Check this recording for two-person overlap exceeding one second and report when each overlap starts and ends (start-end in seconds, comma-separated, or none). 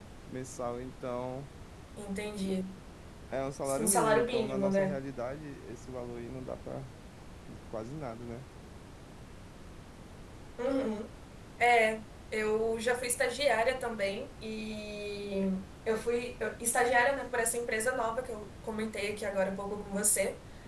3.8-5.0